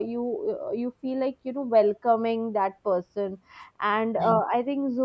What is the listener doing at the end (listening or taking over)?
listening